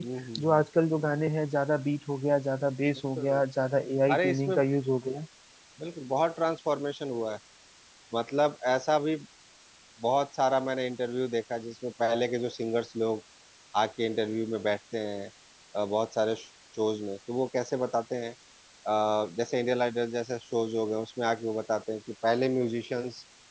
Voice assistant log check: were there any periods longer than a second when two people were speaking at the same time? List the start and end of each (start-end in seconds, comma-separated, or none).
none